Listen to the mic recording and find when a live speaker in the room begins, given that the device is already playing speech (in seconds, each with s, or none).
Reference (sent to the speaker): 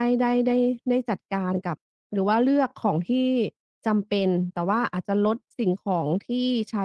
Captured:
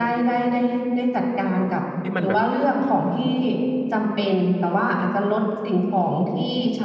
2.0 s